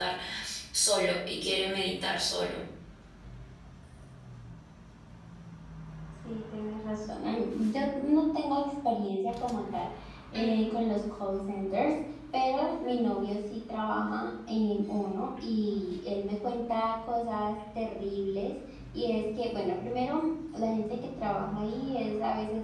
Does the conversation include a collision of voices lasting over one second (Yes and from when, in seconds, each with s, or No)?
No